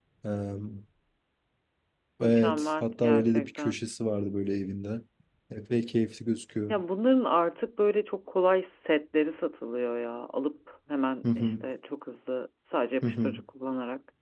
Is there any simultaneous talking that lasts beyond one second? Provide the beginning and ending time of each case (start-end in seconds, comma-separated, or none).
2.2-3.8